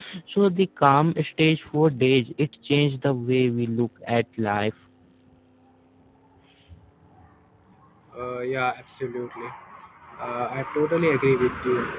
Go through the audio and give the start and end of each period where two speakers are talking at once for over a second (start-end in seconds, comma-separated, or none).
none